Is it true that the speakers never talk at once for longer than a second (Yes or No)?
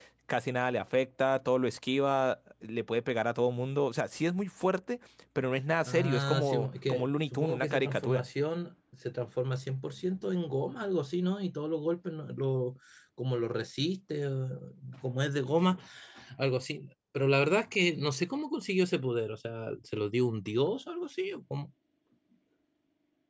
No